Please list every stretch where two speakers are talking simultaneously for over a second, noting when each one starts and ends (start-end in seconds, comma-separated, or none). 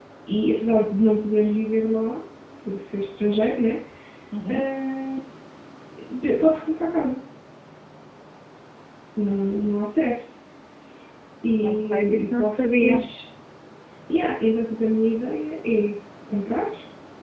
11.6-13.0